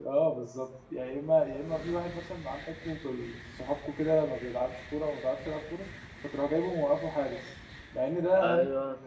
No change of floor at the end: Yes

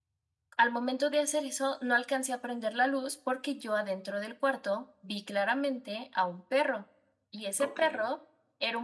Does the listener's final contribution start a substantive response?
No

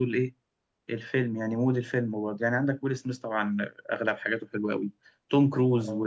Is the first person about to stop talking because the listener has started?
No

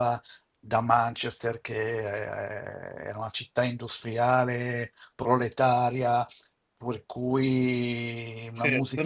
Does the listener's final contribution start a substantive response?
Yes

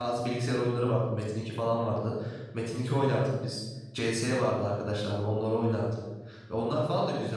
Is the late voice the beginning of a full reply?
No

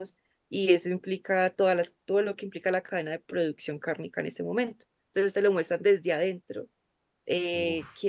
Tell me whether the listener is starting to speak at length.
No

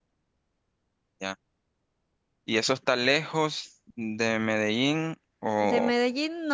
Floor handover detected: Yes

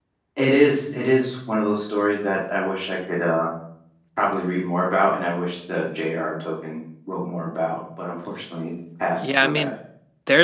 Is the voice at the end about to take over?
Yes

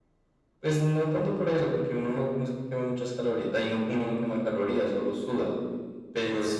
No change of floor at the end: Yes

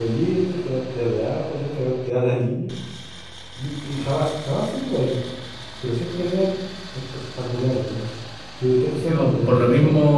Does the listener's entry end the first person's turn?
Yes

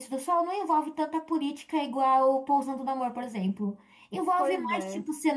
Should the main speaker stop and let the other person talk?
No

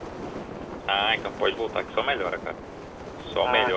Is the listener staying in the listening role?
Yes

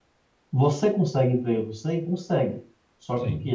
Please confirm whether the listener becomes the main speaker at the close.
No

